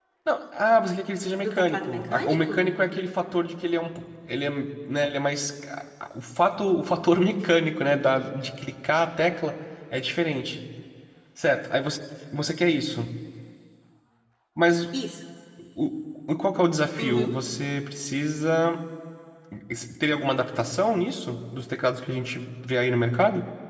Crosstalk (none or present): present